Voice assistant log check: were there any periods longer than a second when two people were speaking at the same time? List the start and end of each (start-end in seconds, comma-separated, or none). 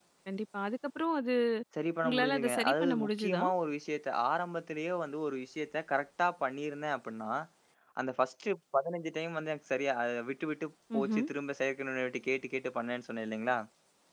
2.0-3.4